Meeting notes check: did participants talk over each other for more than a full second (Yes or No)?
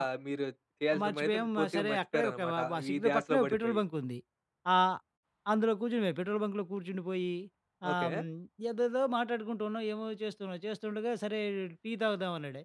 Yes